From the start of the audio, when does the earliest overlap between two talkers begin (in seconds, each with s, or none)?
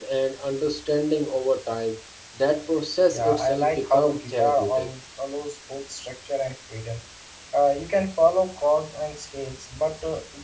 3.1 s